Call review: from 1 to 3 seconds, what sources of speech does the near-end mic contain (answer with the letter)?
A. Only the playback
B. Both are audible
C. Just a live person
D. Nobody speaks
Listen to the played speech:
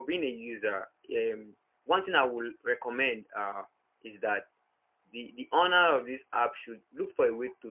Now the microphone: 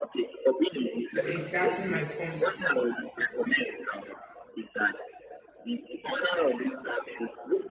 B